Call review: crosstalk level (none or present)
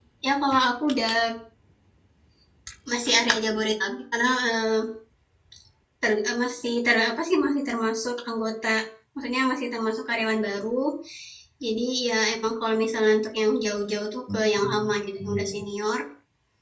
present